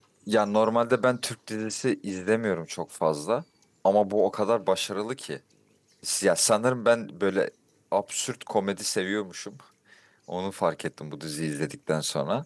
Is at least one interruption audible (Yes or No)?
No